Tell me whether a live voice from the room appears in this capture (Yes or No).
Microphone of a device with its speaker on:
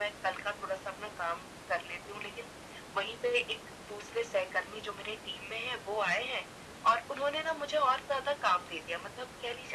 No